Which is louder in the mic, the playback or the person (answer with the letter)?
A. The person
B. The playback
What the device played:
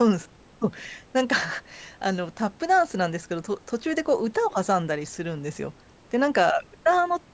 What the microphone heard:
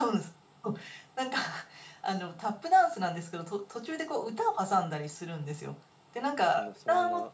B